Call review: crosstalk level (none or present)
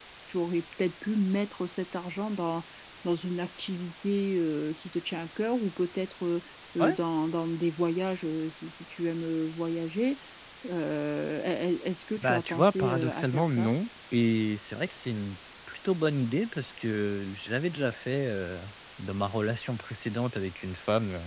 present